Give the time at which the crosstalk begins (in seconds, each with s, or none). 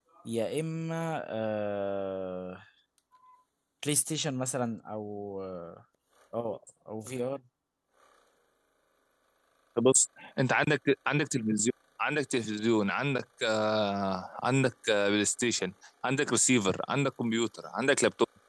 none